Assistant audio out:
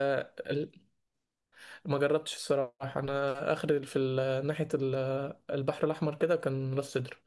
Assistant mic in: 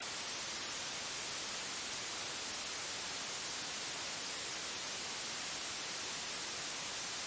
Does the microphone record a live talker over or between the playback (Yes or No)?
No